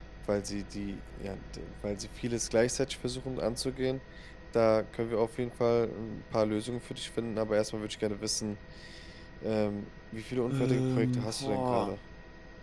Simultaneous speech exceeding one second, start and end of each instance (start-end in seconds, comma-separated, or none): 10.5-12.0